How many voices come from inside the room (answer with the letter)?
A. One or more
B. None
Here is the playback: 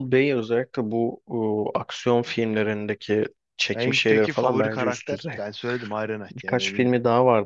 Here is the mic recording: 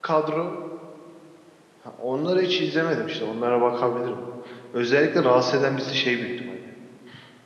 A